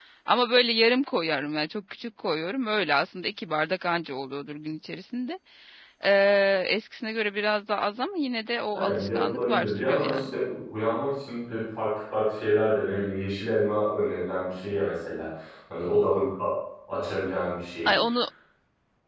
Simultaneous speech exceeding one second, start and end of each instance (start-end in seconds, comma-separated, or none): 8.8-10.2